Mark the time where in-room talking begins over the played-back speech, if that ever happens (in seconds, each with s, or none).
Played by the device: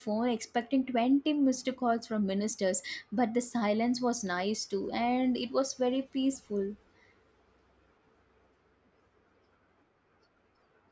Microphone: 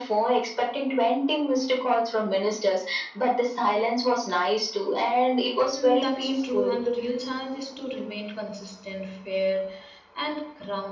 5.7 s